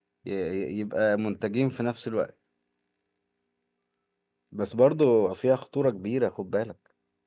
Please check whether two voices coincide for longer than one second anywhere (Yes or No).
No